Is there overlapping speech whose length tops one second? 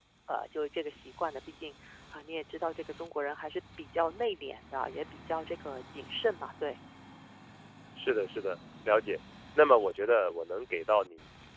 No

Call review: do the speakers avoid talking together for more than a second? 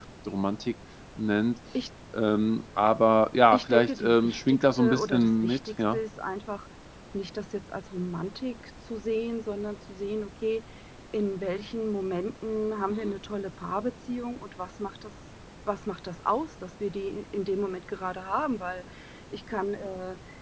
No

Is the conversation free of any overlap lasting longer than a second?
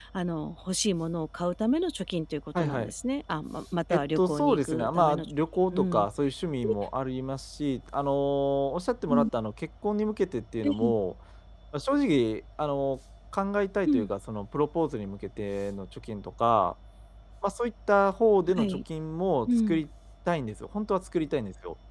No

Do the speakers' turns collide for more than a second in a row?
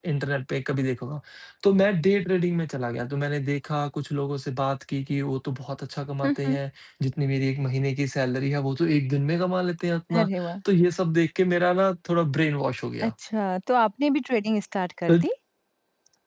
No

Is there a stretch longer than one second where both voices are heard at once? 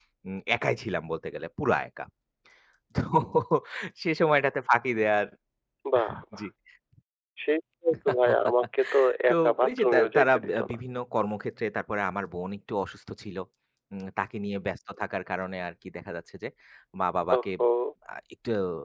Yes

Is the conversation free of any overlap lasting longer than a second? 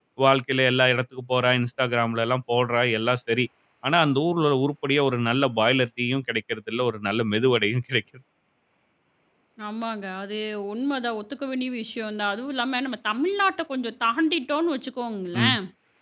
Yes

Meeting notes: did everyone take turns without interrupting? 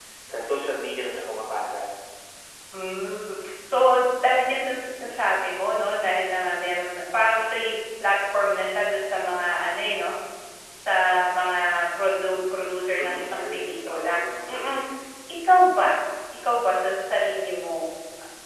No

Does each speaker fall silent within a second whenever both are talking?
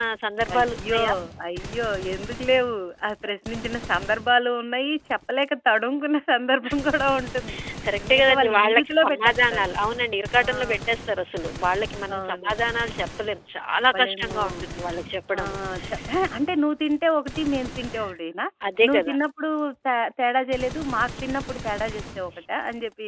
No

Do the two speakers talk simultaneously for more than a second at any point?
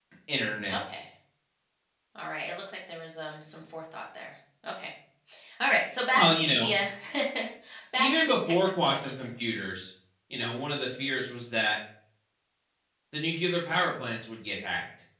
Yes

